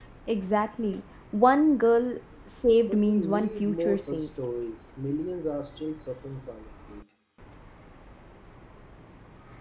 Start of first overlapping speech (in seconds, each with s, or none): 2.9 s